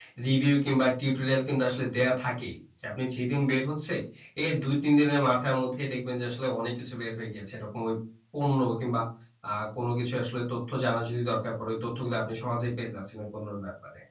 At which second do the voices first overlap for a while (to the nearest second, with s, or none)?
none